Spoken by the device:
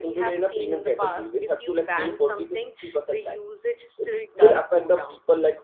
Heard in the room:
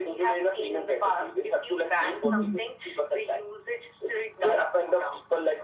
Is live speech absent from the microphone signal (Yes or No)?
No